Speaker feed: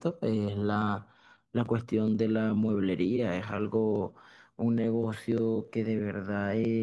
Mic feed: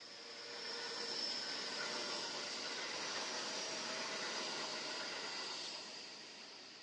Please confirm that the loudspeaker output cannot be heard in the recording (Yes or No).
Yes